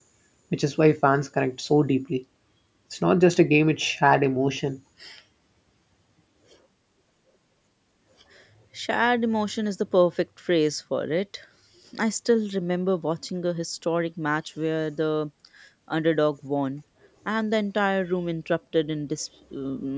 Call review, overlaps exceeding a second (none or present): none